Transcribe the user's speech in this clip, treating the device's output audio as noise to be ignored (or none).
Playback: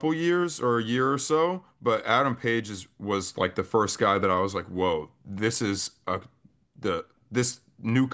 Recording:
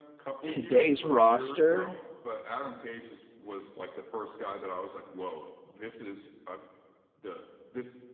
Today's roster.